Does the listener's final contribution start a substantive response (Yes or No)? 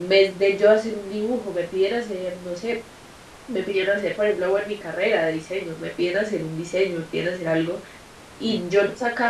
No